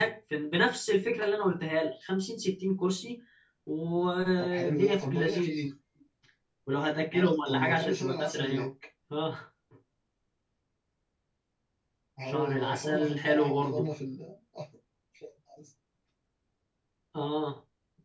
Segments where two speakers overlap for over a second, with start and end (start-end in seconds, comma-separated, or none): 4.4-5.6, 7.1-8.7, 12.3-13.9